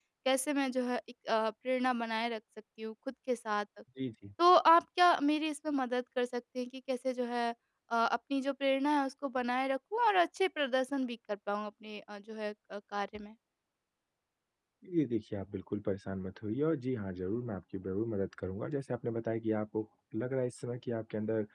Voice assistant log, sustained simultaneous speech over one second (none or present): none